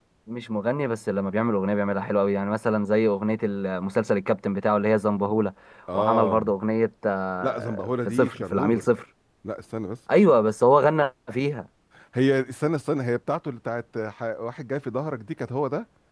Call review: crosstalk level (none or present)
present